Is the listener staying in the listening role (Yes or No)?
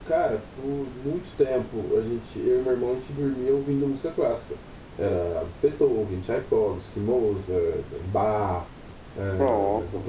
Yes